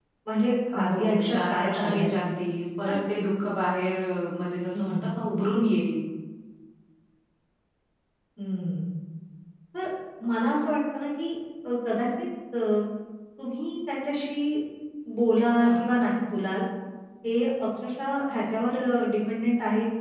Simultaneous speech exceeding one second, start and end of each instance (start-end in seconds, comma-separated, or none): 0.8-2.1